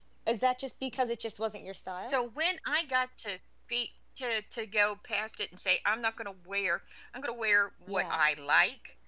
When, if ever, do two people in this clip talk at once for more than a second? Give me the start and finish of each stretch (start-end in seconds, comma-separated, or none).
none